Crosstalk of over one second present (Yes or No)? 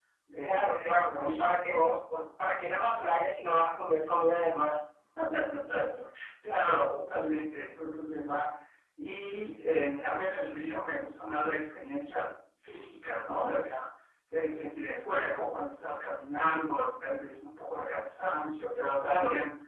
Yes